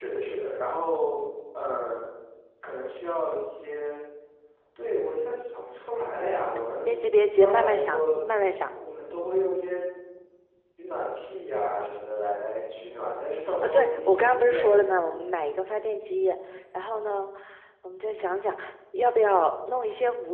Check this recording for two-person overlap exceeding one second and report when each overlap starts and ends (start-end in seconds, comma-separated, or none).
6.8-8.2, 13.6-14.8